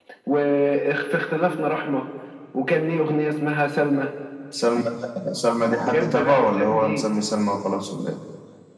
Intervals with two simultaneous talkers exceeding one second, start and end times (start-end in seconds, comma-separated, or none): 5.8-7.0